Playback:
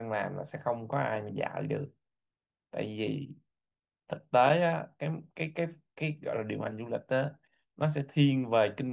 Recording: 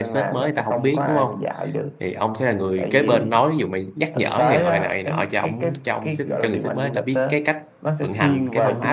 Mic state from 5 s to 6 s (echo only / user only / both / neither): both